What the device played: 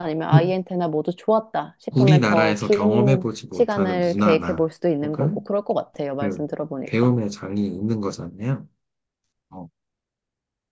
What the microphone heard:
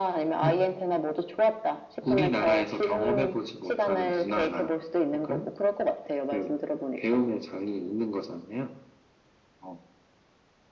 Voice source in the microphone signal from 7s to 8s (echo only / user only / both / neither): echo only